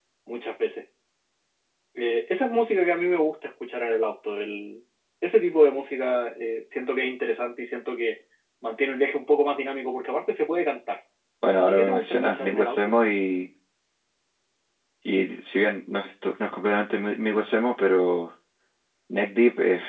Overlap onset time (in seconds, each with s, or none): 11.6 s